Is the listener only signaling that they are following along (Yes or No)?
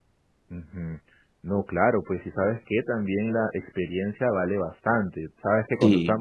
Yes